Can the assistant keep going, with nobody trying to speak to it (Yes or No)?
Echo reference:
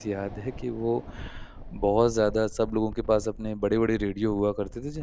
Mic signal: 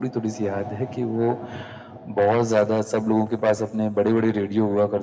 Yes